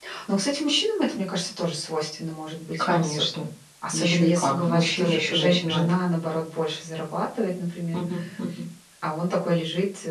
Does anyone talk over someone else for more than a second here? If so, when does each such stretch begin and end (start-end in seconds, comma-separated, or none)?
3.9-5.9